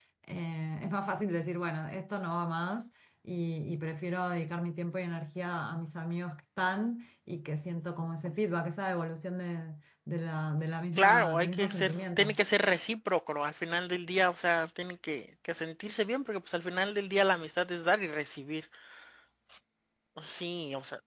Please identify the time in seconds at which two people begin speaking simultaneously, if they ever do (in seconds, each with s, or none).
11.0 s